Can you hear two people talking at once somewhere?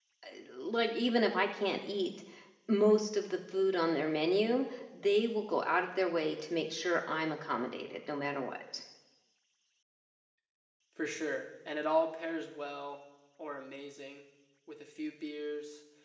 No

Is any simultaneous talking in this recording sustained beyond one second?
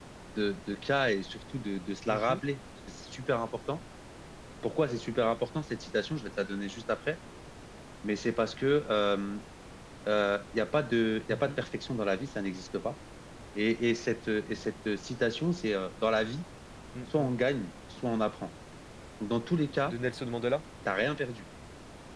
No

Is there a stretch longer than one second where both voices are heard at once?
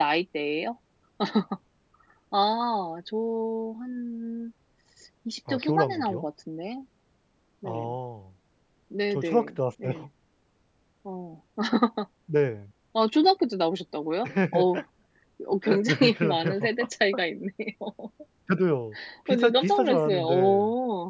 Yes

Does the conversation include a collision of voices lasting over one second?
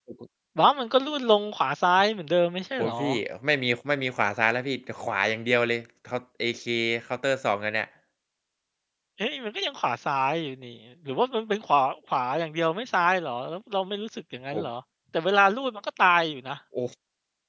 No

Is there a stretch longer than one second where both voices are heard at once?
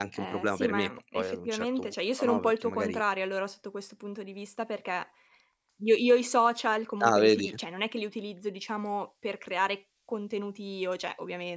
Yes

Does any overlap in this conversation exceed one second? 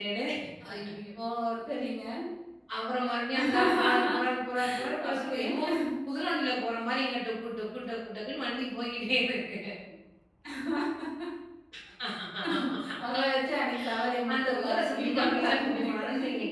Yes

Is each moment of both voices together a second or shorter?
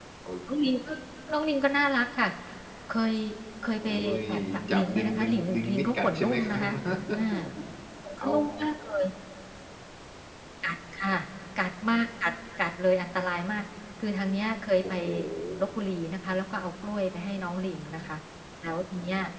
No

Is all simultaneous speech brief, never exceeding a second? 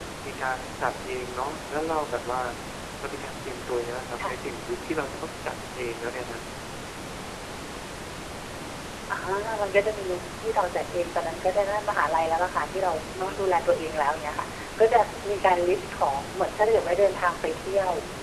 Yes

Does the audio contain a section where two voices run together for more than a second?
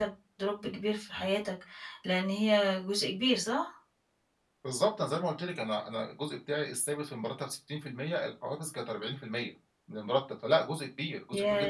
No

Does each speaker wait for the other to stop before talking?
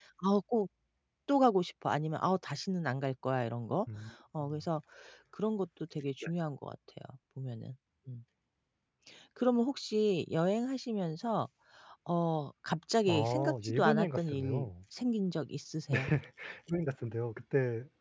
No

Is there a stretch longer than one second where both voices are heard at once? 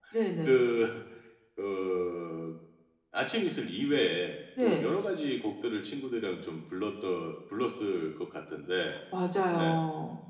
No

